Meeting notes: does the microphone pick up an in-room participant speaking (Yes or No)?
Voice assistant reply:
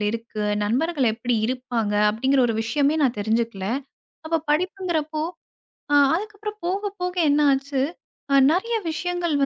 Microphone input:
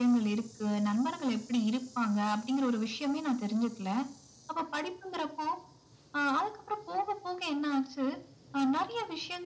No